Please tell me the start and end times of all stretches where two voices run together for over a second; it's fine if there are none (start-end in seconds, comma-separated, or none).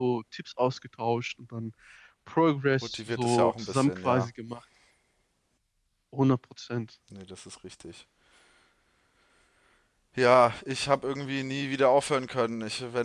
2.9-4.3